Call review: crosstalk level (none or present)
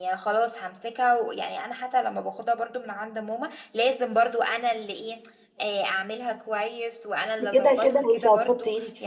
present